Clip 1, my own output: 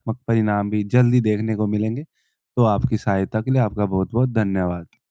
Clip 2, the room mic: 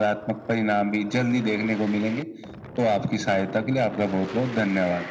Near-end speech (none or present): none